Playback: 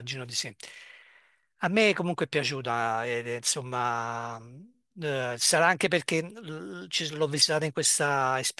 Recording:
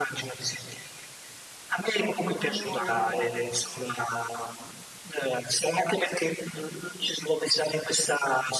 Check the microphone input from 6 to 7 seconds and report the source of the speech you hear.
echo only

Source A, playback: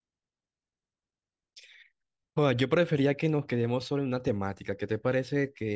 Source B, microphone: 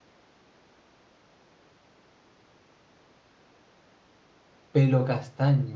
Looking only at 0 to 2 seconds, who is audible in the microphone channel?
neither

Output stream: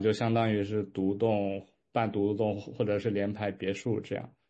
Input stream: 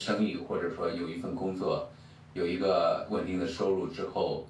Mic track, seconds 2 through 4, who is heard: user only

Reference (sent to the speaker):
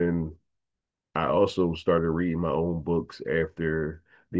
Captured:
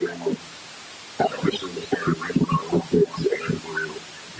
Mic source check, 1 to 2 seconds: echo only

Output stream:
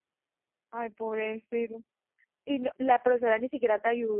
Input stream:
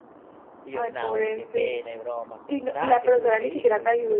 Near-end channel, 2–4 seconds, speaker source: both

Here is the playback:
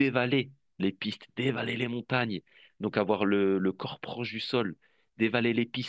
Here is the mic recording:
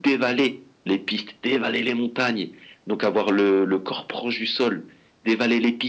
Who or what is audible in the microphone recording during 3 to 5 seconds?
echo only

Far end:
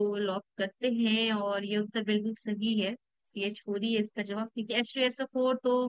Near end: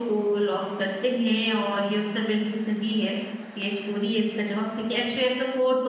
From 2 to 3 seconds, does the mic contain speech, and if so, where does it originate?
echo only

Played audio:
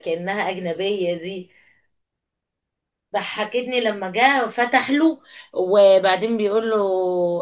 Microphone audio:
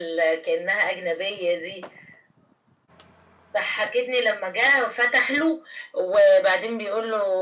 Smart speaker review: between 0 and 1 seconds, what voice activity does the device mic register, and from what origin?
echo only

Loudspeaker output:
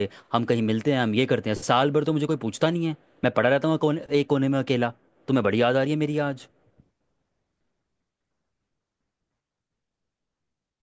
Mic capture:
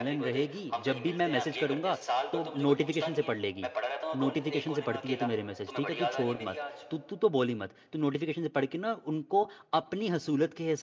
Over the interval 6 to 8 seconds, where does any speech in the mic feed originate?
both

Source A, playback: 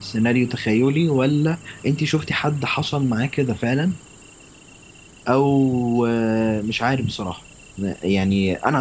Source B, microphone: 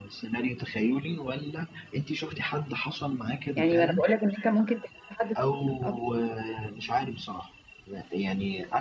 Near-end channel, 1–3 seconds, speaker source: echo only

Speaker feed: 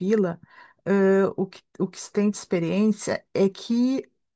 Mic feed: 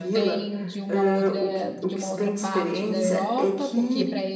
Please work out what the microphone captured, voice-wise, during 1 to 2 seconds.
both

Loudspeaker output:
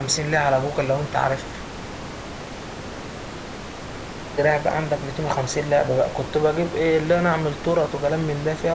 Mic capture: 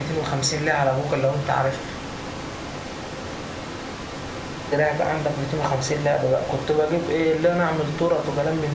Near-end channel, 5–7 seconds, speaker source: echo only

